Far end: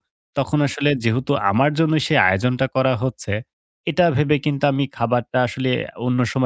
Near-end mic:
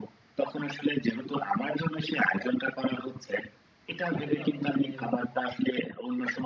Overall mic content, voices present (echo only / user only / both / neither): both